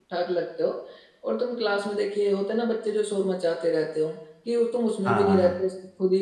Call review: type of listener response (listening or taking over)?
listening